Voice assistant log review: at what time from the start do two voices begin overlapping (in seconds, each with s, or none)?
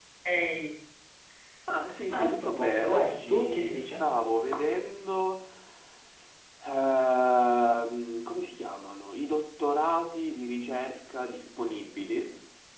2.1 s